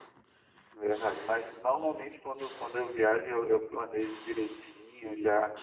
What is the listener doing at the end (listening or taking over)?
listening